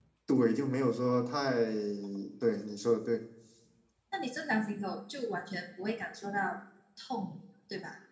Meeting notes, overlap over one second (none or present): none